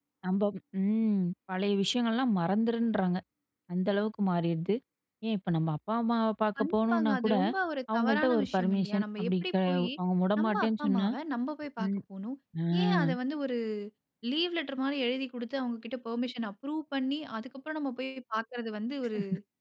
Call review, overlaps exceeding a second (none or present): present